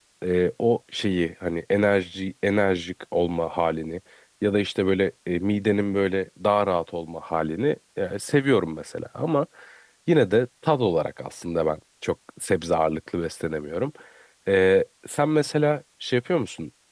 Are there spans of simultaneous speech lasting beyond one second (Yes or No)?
No